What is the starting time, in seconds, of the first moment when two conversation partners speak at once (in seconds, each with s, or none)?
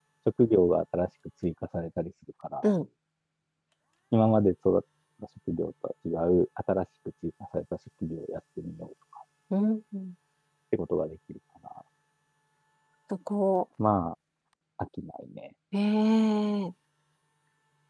none